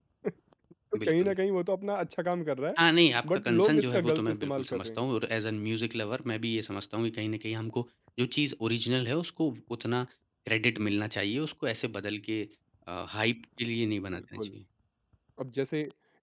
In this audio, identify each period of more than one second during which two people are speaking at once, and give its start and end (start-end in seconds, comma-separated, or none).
3.2-5.0